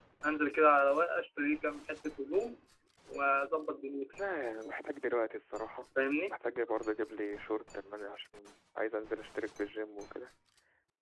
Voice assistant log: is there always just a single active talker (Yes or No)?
Yes